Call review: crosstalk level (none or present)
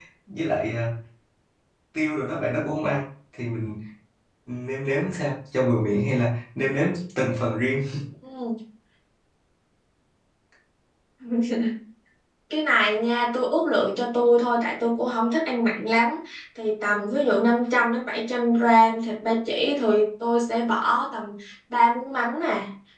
none